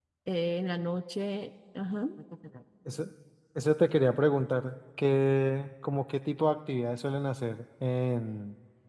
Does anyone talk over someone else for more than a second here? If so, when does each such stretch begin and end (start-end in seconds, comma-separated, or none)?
none